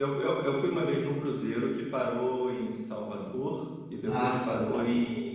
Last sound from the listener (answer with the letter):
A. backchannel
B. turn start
A